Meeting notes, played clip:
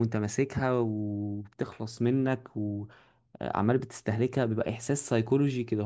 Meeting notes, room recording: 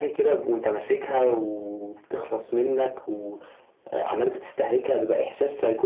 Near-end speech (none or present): none